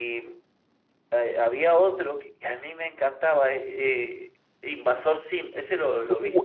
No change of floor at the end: No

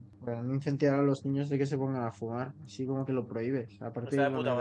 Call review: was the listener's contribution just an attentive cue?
No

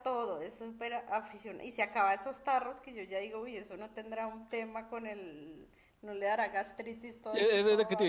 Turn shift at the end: Yes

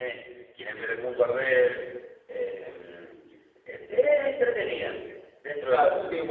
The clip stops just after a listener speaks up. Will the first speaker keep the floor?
No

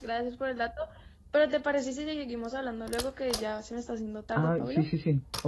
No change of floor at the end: No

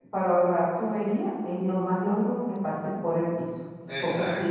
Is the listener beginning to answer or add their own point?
No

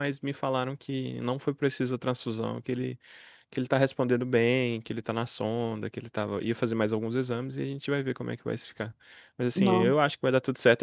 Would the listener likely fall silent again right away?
Yes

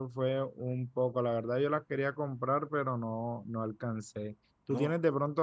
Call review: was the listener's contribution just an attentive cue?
Yes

